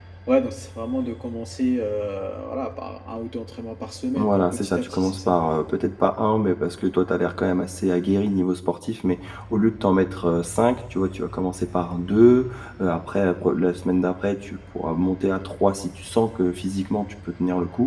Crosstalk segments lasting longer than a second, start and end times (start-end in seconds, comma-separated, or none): 4.2-5.4